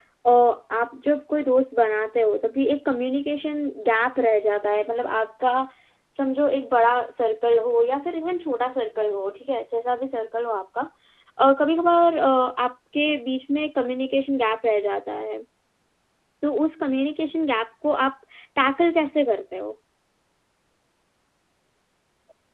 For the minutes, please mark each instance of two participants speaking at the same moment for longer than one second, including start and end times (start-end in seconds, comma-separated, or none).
none